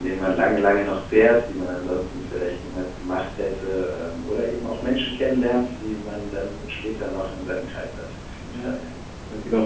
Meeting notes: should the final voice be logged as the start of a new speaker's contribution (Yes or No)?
Yes